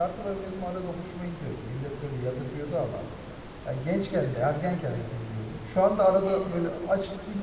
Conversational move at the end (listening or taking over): listening